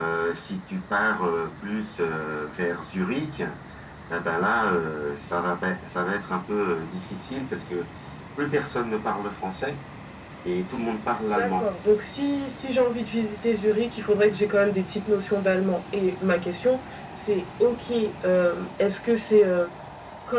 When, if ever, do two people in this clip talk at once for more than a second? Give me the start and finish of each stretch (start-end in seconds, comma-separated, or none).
none